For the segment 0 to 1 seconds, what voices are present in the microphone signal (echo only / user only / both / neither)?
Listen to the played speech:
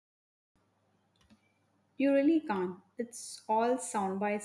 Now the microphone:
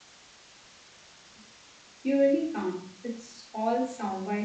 neither